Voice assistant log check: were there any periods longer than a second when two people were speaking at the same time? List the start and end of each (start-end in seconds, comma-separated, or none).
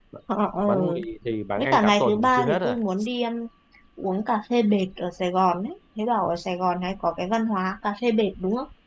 1.6-2.8